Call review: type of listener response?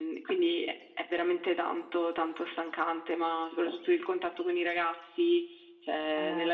taking over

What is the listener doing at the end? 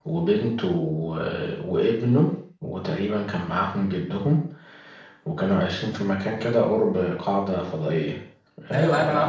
taking over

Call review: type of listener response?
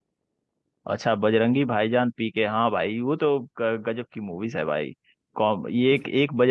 listening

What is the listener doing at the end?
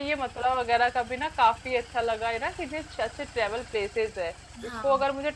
listening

